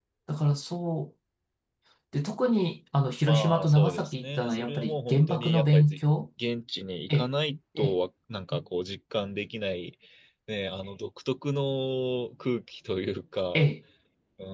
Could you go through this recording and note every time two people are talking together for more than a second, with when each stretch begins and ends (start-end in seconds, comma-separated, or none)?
3.2-6.0